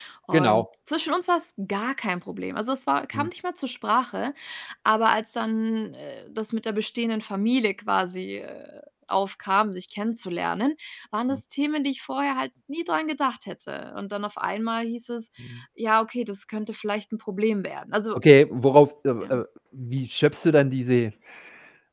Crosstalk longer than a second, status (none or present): none